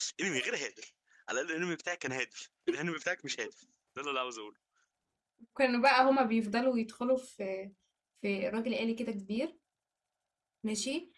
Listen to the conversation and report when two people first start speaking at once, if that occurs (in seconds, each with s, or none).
none